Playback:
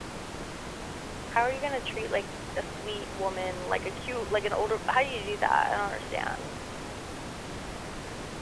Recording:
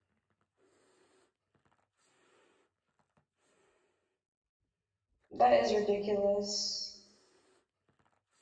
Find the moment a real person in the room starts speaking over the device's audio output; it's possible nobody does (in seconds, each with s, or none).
5.3 s